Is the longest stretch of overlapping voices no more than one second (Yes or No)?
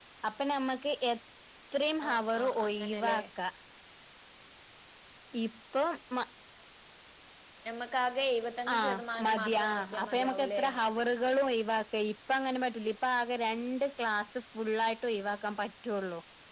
No